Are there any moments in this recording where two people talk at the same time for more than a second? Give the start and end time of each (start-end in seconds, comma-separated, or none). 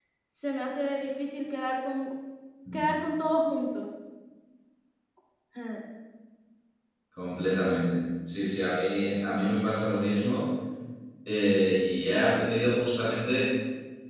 none